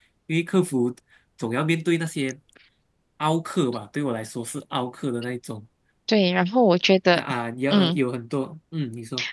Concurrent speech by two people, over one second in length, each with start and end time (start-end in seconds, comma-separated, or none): none